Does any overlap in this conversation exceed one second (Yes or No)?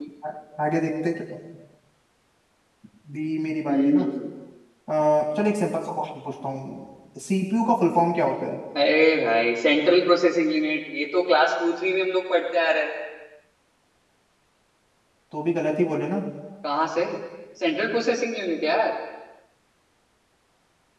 No